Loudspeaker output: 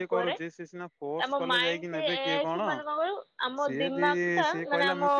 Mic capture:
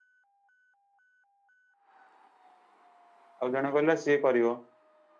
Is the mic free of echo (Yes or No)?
Yes